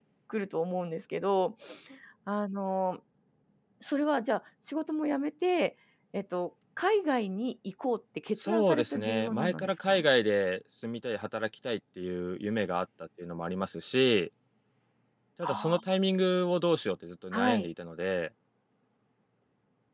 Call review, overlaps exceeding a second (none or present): present